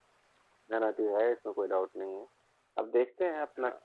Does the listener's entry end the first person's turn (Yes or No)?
No